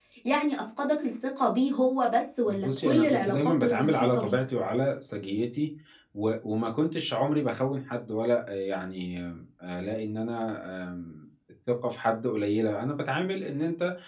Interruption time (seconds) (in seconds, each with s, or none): 2.5 s